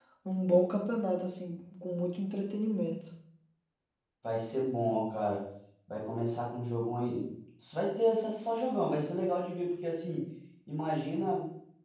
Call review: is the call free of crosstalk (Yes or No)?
Yes